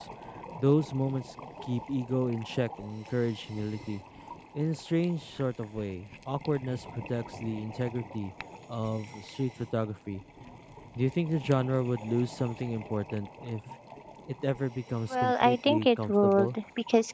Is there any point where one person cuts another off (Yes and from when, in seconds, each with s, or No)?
Yes, from 15.1 s